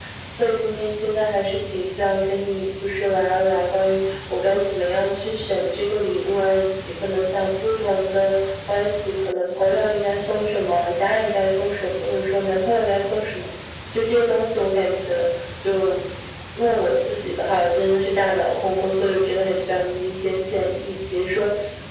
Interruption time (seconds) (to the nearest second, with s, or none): none